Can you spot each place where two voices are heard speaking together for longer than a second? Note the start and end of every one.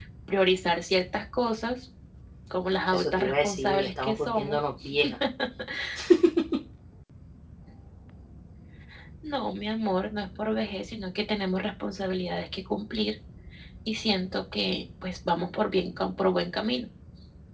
2.9-4.6

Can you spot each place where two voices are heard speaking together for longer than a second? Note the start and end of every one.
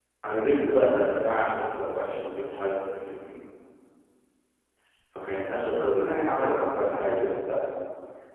5.7-7.1

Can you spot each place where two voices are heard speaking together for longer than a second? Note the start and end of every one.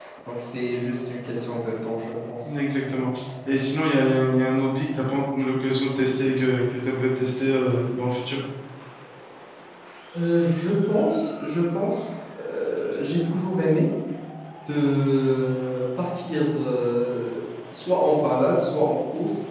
none

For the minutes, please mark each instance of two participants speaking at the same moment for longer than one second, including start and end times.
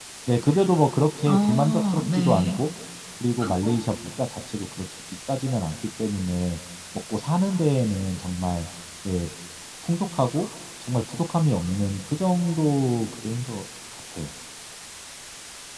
1.2-2.5

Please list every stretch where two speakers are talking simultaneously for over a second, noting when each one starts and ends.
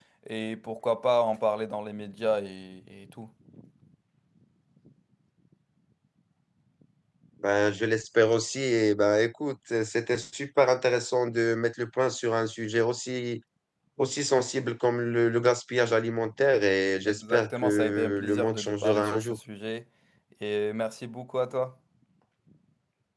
17.1-19.4

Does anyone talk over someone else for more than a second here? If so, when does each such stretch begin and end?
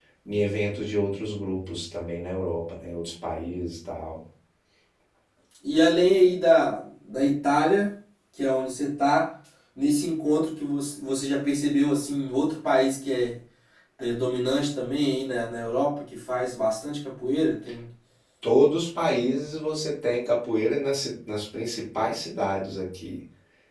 none

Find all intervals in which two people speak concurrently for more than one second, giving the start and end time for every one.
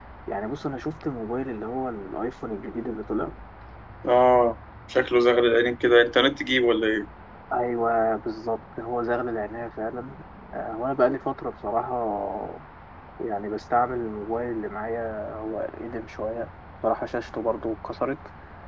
none

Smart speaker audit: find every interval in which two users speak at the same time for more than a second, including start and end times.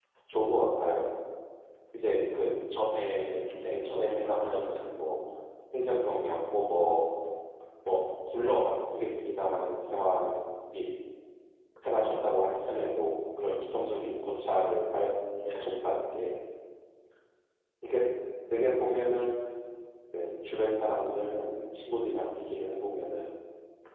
3.4-4.8

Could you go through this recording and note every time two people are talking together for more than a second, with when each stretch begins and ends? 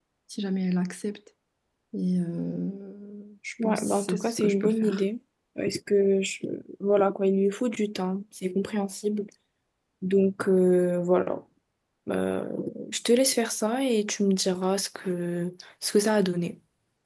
3.6-5.0

